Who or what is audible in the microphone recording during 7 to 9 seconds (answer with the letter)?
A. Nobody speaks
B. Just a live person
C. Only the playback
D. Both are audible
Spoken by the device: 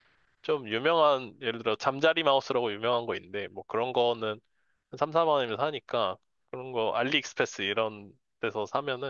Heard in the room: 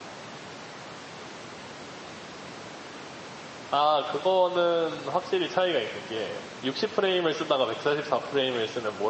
B